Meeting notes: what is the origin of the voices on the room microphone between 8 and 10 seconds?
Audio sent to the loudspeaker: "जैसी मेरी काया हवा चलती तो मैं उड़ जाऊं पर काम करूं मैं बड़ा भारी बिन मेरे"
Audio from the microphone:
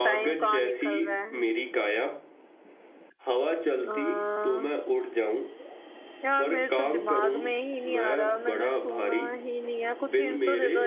both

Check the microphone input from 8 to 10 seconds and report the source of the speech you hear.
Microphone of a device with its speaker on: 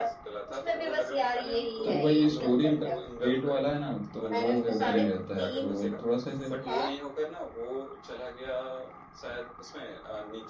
echo only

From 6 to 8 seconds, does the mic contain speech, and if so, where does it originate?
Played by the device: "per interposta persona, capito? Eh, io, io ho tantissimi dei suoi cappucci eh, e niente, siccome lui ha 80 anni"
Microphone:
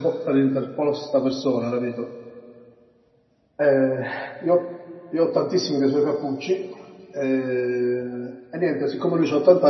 echo only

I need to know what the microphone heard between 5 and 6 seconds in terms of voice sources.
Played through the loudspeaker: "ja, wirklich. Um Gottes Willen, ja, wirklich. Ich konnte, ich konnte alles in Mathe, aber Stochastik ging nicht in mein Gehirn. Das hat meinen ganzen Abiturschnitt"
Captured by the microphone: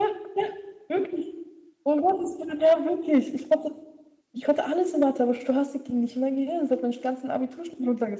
echo only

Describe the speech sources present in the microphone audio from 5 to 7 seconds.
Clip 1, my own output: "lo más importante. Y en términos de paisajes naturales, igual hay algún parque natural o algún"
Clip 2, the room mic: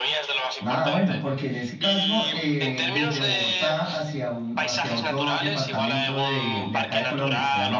both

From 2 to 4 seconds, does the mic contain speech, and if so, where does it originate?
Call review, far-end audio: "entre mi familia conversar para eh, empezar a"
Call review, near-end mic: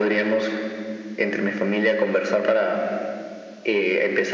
echo only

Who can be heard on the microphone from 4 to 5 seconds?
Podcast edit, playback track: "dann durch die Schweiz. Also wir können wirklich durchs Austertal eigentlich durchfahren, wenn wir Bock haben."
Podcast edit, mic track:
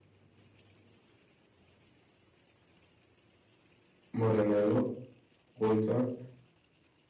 user only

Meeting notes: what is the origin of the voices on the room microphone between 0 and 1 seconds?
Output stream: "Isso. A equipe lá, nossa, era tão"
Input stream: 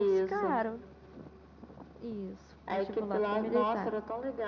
both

